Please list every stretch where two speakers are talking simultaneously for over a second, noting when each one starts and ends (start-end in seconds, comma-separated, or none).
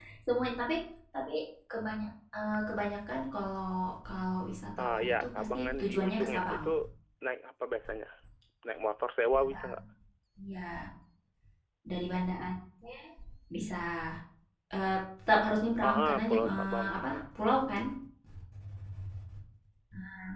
4.8-6.7, 15.9-17.2